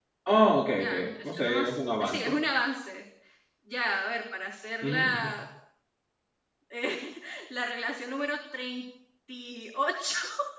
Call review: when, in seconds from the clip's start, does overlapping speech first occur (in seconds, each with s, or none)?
0.8 s